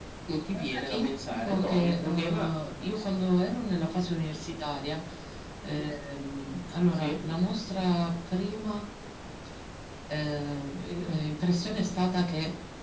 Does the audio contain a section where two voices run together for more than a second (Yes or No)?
Yes